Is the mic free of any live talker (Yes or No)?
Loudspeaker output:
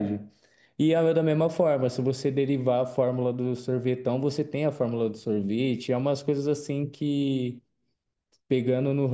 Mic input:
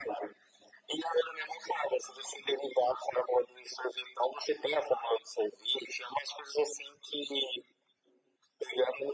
Yes